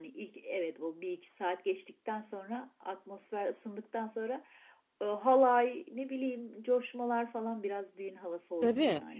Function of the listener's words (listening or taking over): taking over